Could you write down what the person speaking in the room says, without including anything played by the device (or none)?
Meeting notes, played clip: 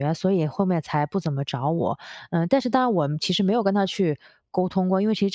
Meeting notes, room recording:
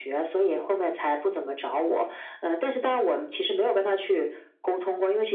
none